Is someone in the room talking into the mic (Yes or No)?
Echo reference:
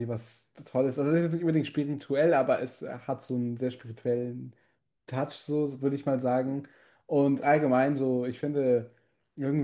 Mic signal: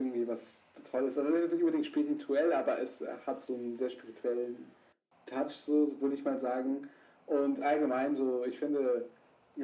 No